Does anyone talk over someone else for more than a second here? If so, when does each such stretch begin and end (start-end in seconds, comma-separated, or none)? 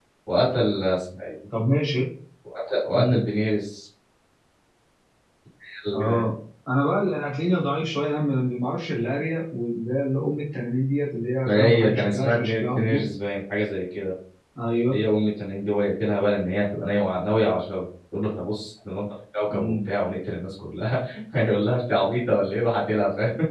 11.4-13.0